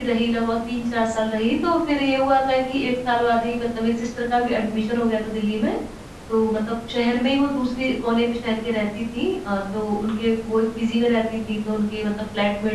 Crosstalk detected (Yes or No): No